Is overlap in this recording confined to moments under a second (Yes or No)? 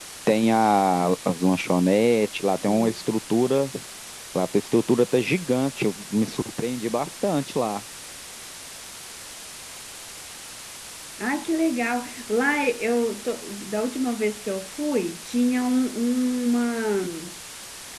Yes